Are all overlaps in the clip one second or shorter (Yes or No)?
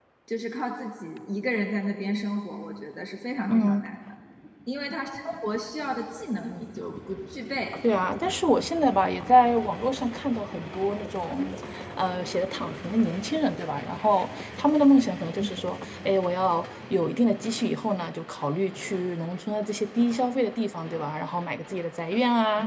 Yes